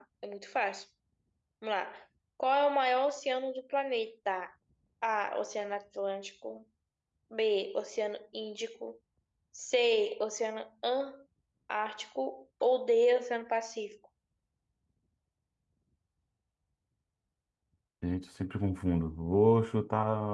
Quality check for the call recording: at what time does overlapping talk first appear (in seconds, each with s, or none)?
none